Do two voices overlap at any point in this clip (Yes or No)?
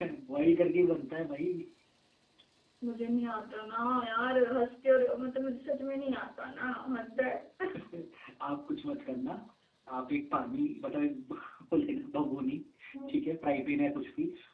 No